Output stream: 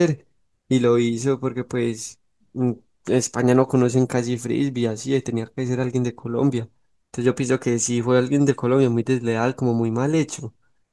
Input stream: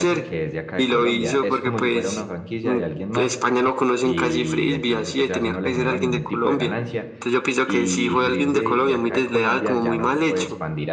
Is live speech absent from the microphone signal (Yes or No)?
No